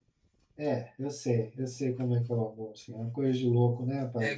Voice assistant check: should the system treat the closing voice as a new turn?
Yes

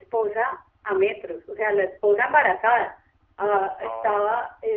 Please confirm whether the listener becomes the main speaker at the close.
No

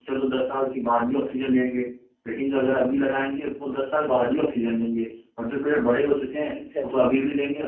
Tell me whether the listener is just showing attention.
Yes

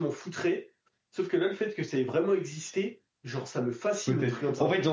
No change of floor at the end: No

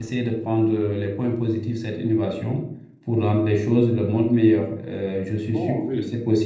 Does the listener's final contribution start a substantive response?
No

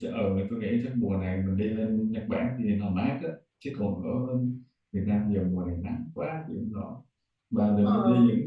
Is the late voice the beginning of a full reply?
No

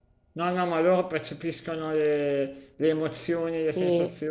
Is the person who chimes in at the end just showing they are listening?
Yes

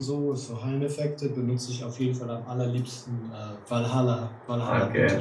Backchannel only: No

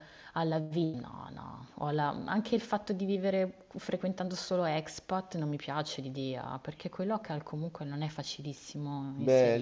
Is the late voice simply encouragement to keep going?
No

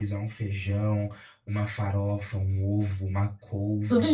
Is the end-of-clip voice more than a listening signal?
No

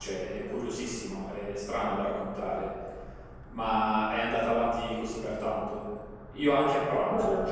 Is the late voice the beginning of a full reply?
No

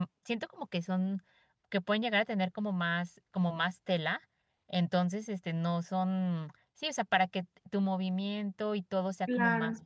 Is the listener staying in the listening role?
No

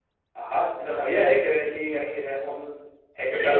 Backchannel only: No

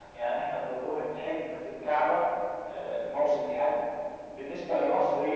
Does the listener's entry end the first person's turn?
No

